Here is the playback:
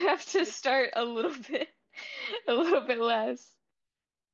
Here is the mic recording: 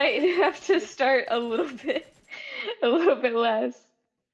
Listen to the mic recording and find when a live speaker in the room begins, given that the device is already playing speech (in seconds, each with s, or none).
none